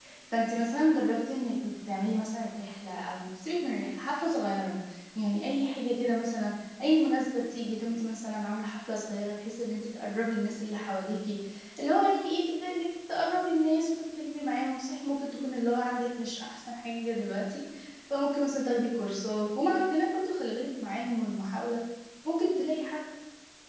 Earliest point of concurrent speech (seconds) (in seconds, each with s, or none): none